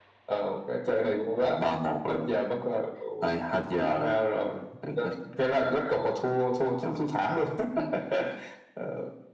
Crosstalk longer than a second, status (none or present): none